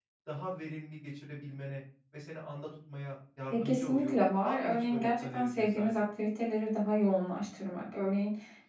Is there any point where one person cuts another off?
Yes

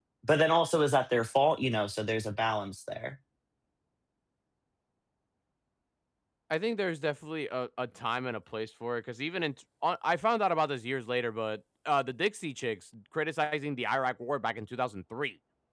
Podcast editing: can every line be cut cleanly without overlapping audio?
Yes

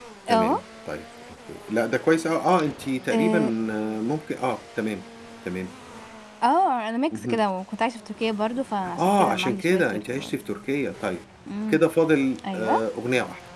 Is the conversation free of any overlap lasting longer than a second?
No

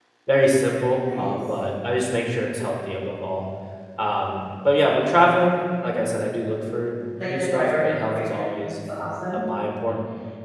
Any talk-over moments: Yes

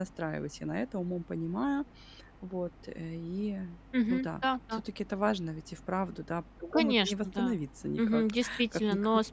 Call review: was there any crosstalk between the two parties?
Yes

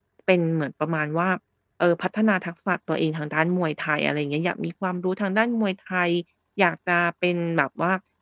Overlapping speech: No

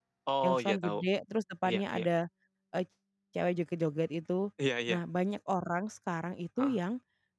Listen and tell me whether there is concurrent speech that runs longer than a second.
No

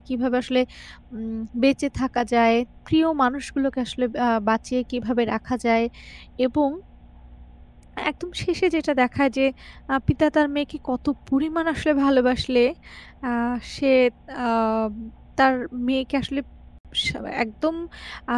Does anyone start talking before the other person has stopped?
No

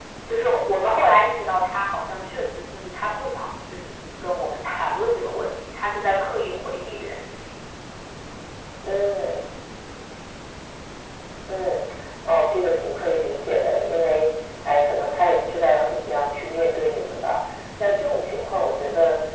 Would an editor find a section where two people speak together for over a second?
No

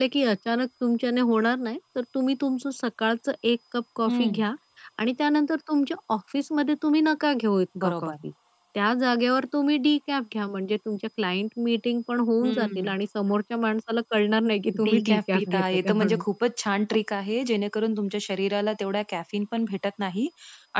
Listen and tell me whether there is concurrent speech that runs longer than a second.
Yes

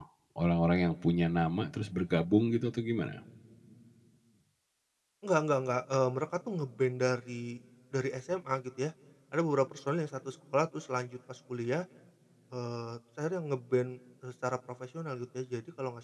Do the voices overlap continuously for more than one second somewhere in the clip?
No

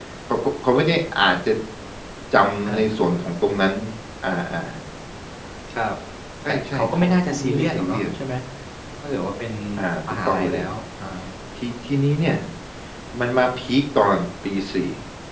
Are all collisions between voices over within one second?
No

